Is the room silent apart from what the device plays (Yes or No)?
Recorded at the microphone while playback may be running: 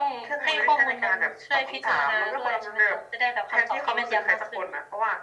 Yes